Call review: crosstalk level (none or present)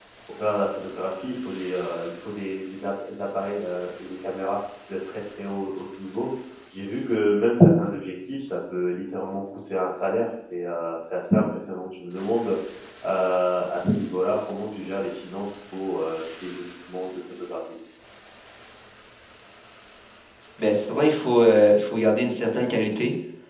none